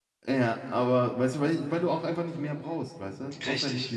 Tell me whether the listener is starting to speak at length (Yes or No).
No